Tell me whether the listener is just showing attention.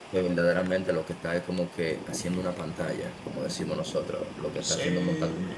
No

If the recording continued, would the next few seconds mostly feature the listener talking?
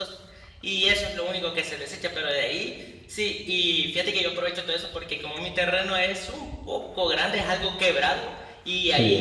No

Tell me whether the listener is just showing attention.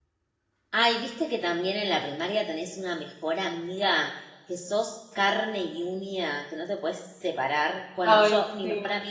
Yes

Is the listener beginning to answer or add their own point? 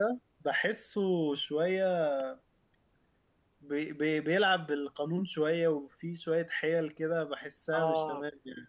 Yes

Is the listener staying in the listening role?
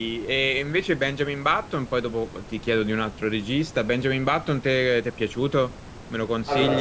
Yes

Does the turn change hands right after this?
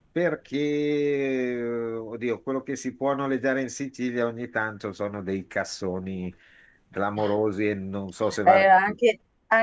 Yes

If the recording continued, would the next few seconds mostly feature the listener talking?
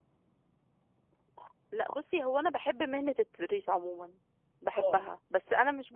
No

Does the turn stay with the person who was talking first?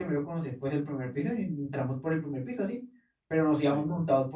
Yes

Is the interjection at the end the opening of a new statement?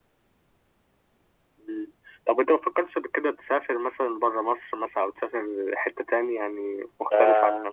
Yes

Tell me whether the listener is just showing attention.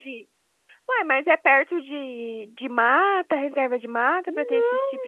No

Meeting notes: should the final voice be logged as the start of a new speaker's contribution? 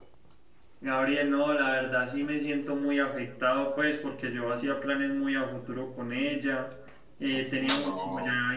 No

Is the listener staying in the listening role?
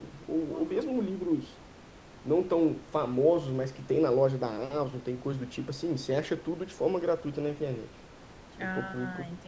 No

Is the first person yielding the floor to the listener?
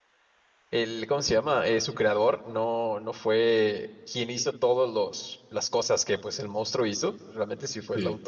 No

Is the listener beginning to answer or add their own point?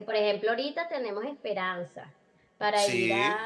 No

